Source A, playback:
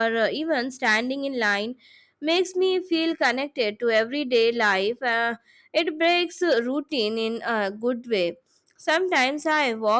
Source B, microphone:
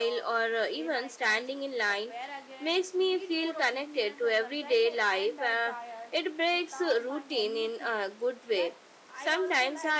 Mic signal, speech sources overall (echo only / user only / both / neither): both